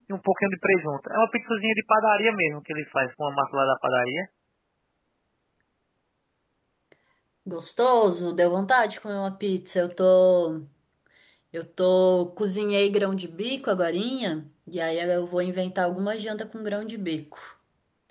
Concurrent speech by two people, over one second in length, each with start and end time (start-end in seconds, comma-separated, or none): none